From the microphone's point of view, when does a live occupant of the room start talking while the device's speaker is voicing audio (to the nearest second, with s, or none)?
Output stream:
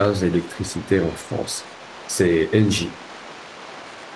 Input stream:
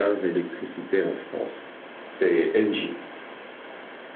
none